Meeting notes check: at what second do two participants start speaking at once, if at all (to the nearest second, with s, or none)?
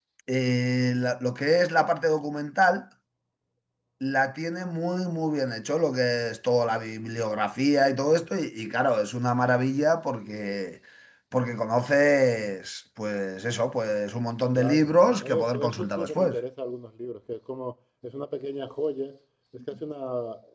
15 s